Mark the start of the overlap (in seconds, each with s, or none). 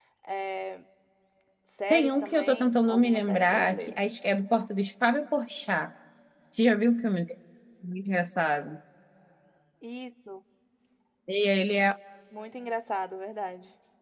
1.9 s